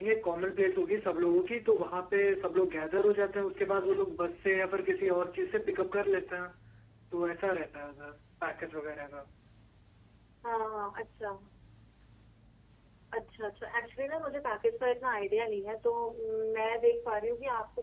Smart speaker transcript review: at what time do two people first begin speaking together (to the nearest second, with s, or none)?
none